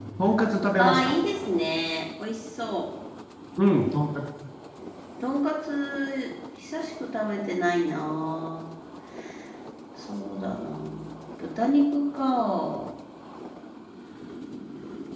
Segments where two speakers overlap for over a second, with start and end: none

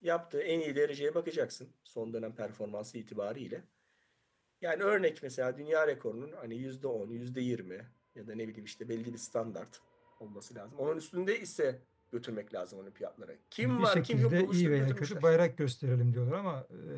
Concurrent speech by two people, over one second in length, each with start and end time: 13.6-15.3

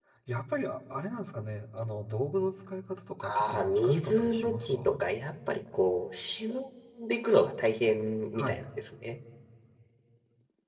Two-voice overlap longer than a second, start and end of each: 3.2-5.0

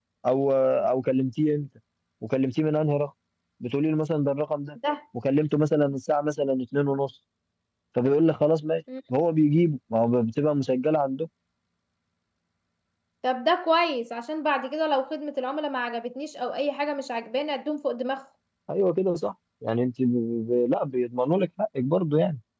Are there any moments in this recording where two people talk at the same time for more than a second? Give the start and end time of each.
none

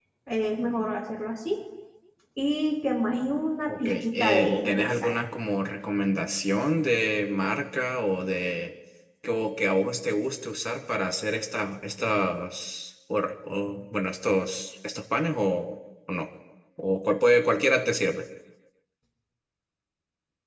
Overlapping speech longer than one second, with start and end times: 3.9-5.1

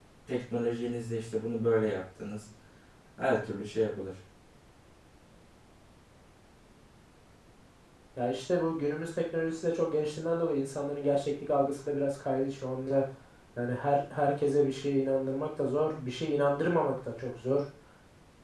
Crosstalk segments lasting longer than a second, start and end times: none

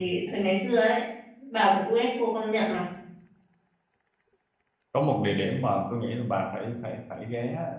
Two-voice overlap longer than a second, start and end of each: none

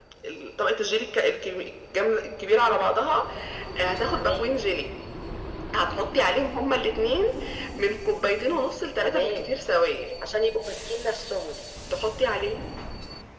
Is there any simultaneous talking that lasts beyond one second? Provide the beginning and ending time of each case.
none

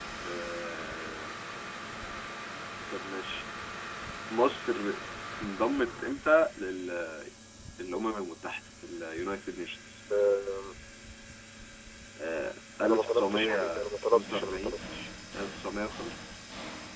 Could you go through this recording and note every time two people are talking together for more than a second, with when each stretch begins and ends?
12.9-14.8

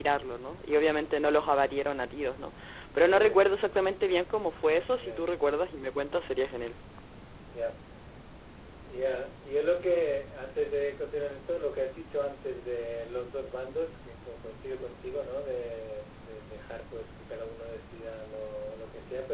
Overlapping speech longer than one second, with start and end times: none

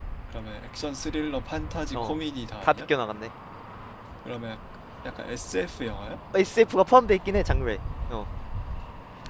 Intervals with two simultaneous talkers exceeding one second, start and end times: none

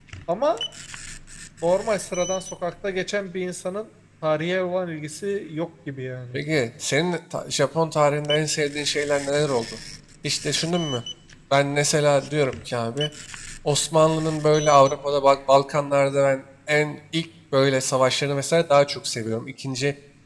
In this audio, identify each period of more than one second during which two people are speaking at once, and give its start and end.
none

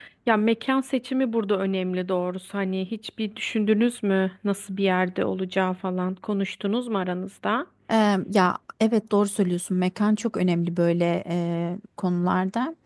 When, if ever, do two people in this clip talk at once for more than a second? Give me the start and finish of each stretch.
none

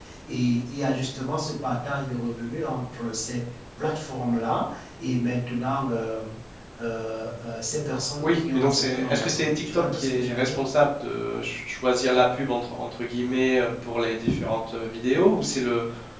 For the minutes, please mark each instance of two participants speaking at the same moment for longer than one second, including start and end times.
8.2-10.6

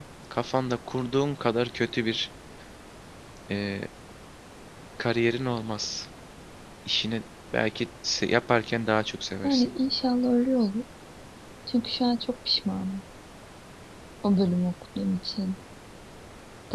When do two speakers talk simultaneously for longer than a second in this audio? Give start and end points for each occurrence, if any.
none

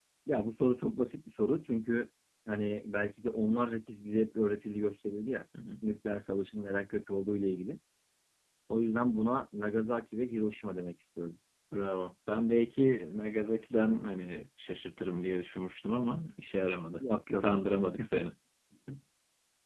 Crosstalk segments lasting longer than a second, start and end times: none

